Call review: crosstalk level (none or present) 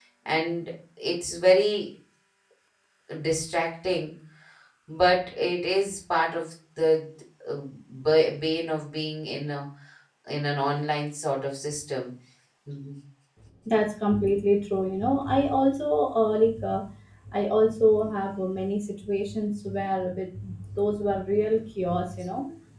none